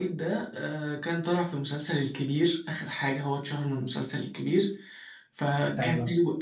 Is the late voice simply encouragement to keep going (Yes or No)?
Yes